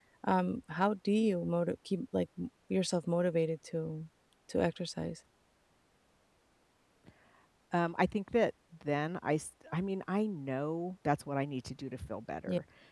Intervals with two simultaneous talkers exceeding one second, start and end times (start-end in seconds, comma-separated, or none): none